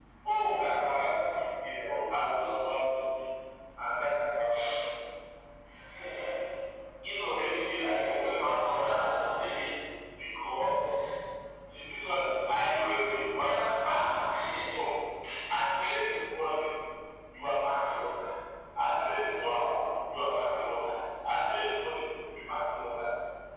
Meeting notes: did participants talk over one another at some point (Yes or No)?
Yes